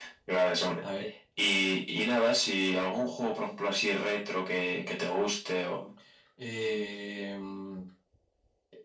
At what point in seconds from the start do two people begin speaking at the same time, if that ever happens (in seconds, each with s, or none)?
none